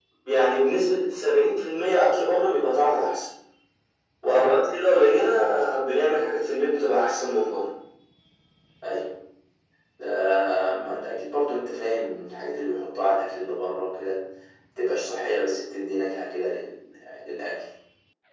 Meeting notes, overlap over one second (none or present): none